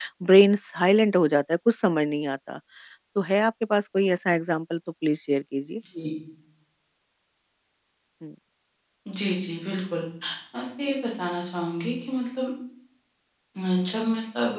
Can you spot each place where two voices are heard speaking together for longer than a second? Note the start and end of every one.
none

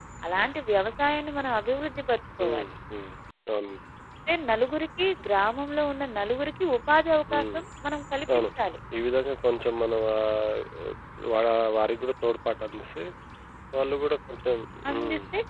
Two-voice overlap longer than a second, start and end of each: none

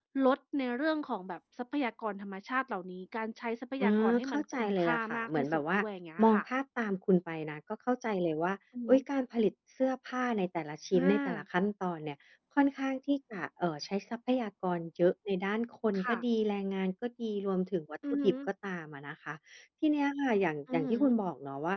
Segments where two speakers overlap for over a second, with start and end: 3.8-5.8

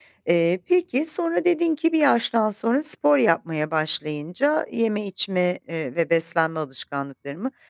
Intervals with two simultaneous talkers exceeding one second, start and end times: none

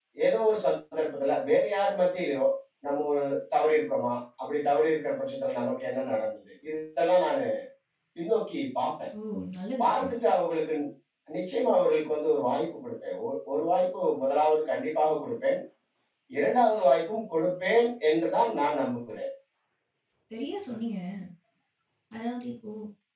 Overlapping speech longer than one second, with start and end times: none

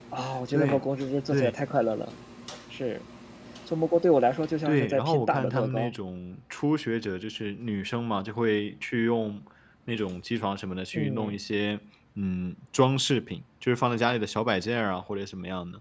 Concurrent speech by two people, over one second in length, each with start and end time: 4.7-5.9

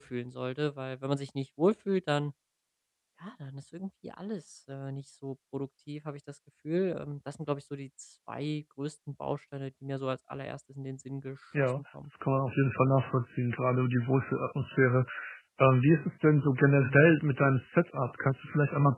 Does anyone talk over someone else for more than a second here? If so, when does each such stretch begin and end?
none

